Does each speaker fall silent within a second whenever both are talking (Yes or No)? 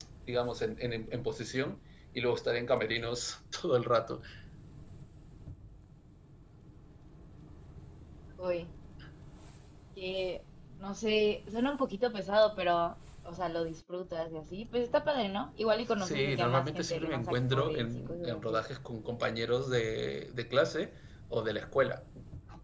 No